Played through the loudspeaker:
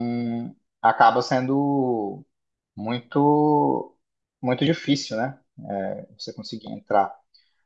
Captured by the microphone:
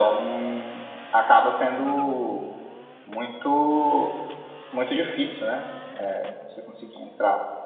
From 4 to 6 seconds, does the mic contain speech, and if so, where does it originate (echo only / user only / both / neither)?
echo only